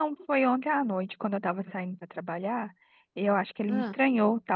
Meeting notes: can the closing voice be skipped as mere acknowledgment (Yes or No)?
Yes